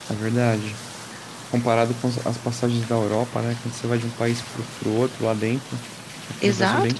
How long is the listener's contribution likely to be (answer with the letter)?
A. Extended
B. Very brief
A